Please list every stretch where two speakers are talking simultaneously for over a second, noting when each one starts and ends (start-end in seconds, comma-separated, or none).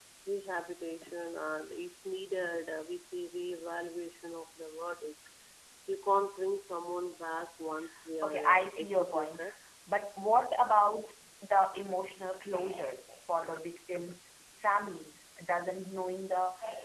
8.2-9.4